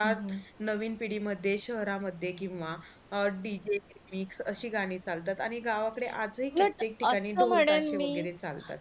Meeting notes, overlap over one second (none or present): present